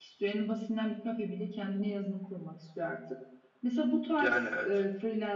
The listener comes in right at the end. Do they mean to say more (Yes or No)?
No